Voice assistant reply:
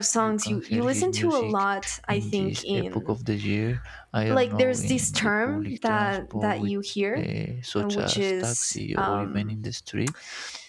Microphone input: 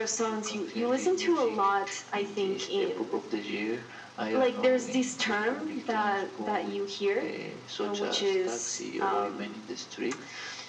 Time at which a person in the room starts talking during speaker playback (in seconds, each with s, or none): none